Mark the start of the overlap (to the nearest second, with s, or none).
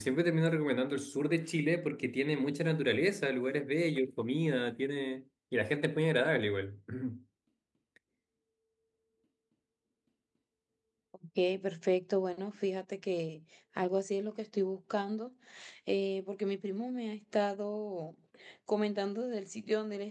none